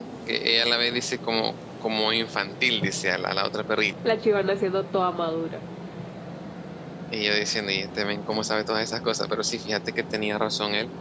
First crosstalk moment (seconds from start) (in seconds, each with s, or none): none